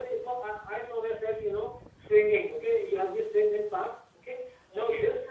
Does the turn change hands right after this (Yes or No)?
No